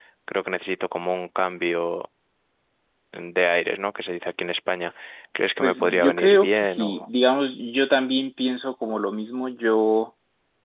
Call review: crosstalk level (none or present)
present